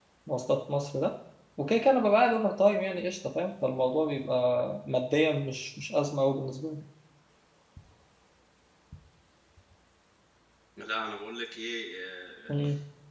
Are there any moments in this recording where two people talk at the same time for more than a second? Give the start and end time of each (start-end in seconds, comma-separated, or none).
none